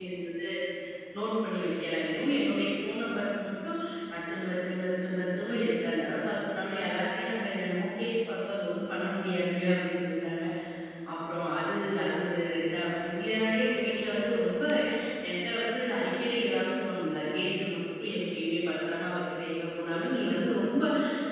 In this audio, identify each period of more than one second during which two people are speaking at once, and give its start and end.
none

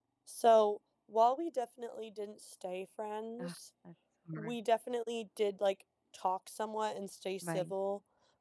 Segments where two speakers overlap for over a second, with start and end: none

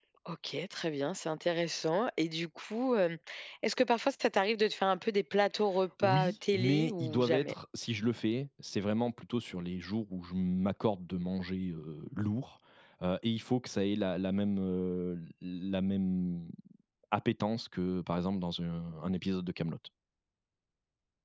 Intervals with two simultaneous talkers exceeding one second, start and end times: 6.0-7.5

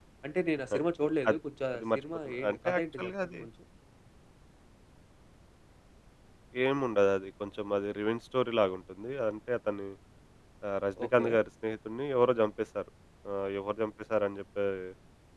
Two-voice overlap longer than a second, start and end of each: 1.7-3.4

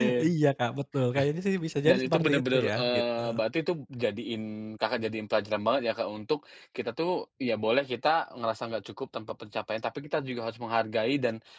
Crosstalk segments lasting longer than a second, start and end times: 1.9-3.2

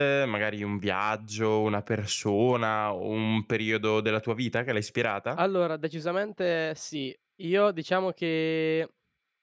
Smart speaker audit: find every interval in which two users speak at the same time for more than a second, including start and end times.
none

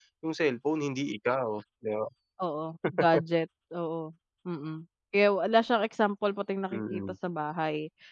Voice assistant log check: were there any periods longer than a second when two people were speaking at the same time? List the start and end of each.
none

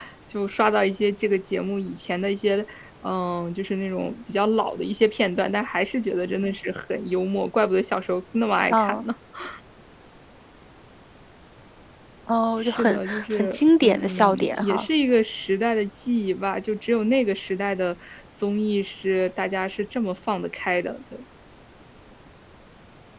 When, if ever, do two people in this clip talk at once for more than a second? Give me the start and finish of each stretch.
12.6-14.9

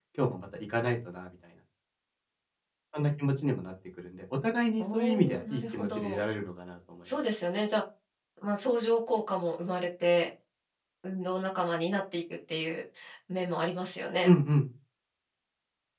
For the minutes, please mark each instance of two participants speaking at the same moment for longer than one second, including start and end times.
4.8-6.2

